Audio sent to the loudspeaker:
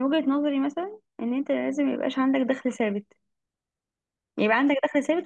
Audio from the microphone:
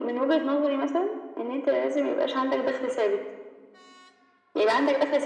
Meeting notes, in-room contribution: none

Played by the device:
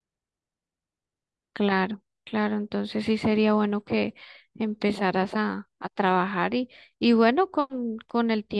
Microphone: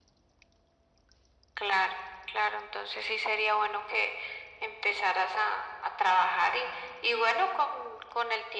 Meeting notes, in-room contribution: none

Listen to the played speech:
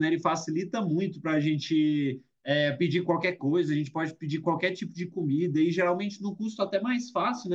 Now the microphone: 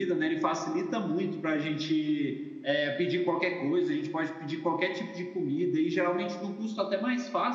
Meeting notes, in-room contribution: none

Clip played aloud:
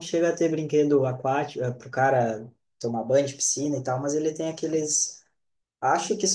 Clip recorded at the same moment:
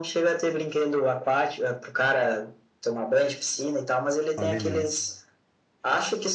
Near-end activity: present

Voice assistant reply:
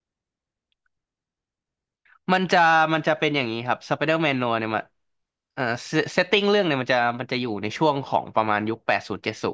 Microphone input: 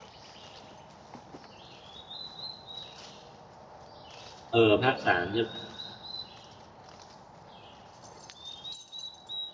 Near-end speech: present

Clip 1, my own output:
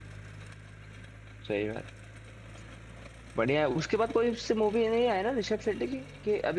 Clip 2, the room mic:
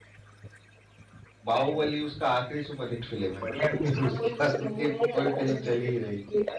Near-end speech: present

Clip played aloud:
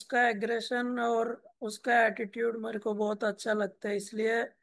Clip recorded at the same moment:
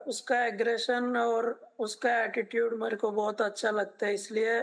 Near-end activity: none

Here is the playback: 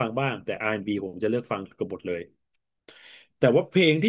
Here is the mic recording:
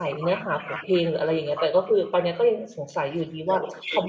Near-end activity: present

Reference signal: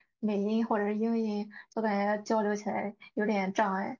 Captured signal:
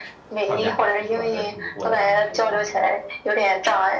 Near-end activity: present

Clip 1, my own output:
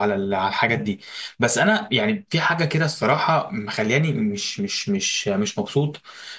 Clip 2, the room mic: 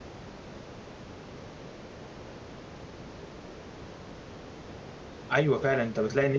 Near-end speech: present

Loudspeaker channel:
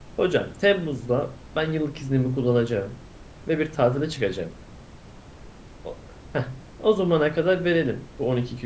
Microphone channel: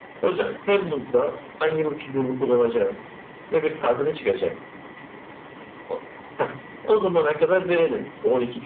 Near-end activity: none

